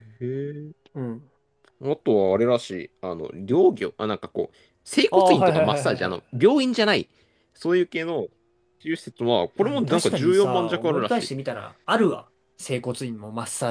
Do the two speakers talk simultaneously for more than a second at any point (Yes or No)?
Yes